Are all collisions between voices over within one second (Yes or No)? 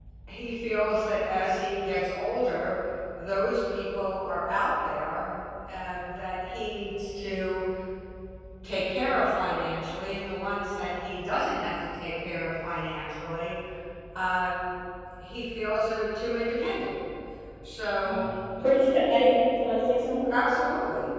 Yes